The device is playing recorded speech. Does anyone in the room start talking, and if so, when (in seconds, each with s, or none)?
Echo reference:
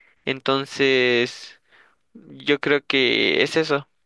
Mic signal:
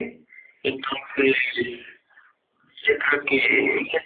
none